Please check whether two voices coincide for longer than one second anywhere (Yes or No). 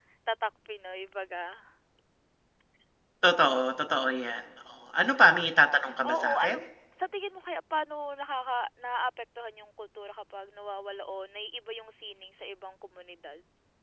No